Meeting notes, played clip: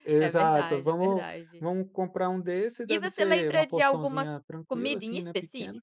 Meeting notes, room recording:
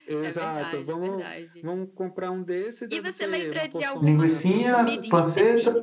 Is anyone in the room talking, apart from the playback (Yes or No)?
Yes